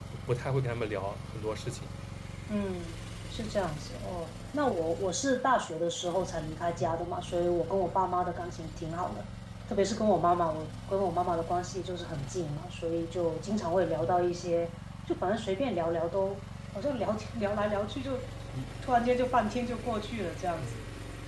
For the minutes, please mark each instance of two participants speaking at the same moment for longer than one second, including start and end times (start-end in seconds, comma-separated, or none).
none